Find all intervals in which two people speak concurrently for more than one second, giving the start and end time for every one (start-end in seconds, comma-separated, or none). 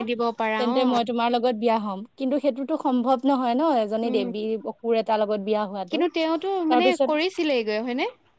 none